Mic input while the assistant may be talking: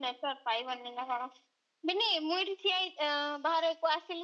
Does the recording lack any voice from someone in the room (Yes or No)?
Yes